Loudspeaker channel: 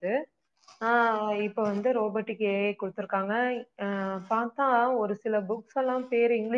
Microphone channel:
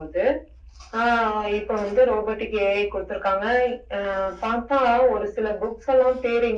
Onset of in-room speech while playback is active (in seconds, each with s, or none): none